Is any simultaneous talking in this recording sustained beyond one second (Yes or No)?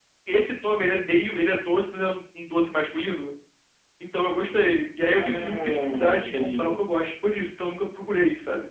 Yes